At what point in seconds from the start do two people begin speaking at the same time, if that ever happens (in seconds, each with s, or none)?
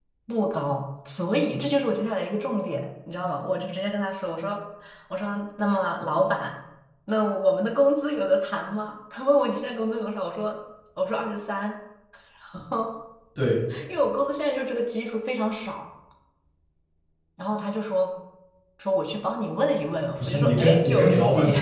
20.2 s